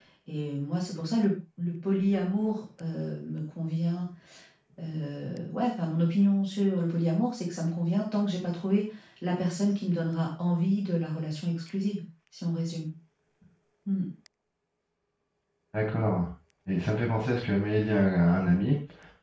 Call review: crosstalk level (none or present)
none